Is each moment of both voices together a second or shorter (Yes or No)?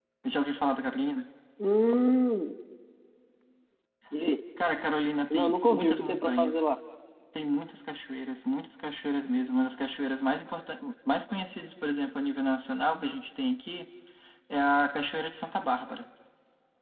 No